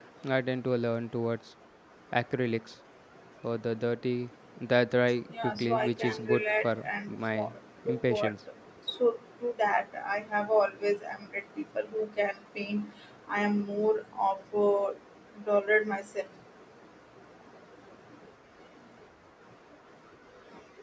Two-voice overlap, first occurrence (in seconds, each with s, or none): 5.4 s